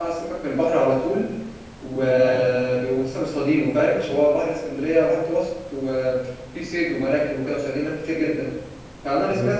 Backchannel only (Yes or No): Yes